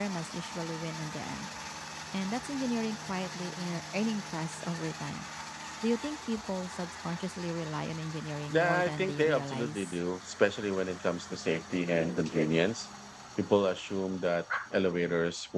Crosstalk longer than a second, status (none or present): present